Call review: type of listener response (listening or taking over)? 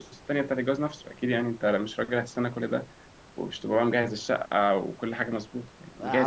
taking over